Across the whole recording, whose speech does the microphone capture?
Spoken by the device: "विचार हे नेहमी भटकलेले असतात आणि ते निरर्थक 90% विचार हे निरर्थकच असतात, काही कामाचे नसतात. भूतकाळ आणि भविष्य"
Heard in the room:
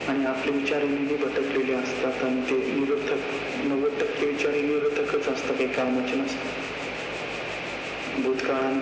echo only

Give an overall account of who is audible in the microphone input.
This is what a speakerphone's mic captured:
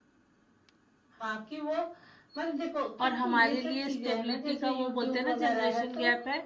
both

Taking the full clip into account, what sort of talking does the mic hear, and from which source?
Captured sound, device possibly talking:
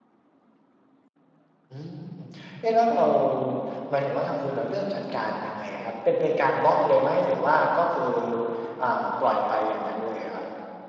echo only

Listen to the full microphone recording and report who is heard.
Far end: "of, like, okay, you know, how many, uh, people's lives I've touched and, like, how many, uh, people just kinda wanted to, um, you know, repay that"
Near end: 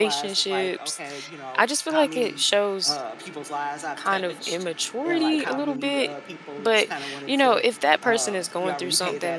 both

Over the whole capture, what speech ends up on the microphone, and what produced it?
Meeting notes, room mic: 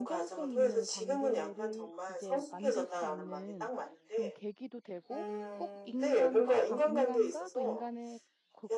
both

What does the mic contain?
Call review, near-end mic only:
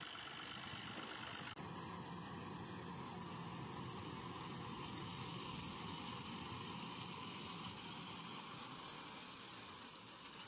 neither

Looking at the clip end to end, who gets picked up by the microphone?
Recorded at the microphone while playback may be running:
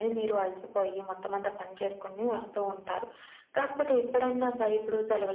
echo only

